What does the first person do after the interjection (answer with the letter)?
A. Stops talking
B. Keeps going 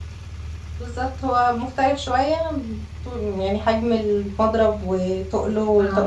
A